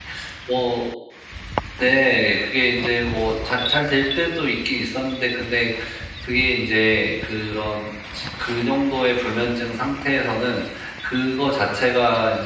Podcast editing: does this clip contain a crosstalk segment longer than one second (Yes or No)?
No